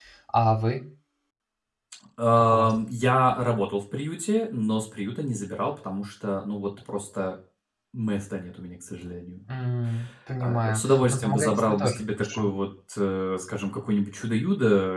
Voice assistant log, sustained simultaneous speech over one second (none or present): present